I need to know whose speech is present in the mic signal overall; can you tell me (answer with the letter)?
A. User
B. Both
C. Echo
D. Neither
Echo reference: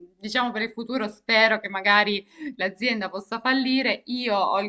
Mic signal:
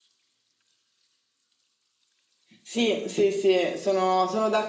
A